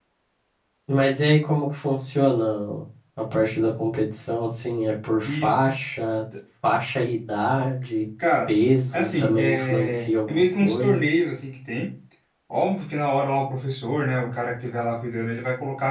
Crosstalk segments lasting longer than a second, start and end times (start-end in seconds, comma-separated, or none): 8.9-11.1